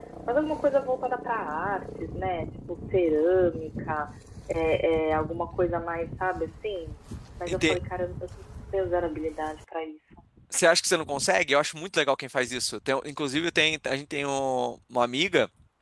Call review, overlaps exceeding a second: none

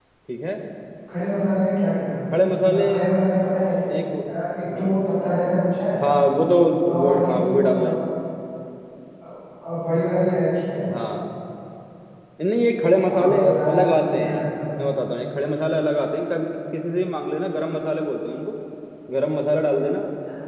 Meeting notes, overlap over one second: present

